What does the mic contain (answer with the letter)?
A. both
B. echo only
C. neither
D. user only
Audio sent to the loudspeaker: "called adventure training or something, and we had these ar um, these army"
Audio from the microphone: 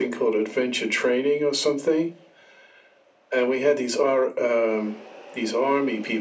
B